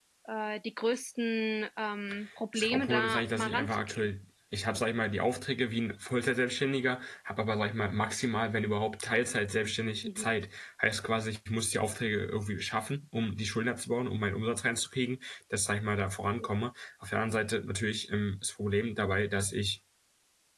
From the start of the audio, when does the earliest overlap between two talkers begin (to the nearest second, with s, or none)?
3 s